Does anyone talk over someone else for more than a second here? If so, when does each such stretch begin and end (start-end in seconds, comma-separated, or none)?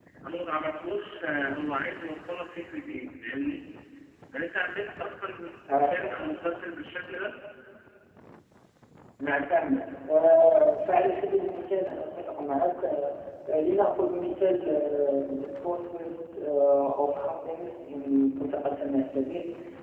none